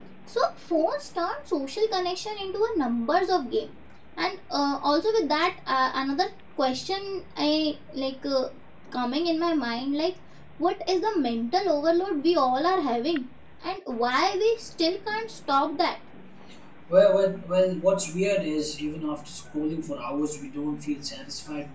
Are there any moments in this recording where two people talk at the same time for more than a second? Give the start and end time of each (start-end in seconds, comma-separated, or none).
none